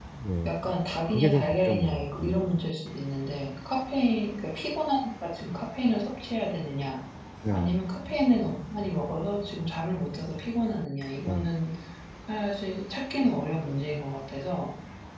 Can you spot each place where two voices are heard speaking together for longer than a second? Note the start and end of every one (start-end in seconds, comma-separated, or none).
1.1-2.4